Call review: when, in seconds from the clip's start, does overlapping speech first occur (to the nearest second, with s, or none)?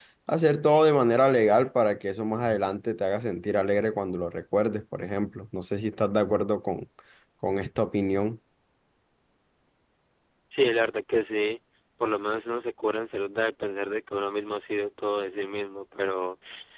none